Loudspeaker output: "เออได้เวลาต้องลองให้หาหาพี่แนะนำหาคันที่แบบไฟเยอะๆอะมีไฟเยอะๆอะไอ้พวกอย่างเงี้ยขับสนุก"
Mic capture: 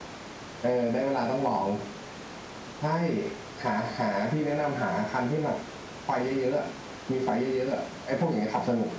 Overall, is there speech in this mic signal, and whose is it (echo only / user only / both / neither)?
echo only